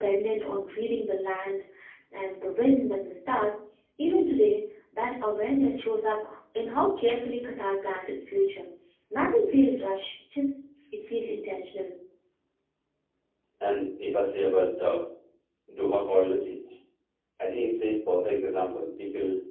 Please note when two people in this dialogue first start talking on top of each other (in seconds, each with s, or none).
none